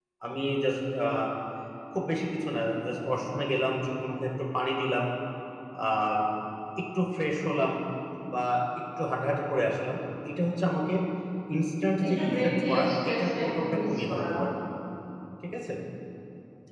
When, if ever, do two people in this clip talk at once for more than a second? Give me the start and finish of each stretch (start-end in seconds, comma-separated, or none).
12.0-14.2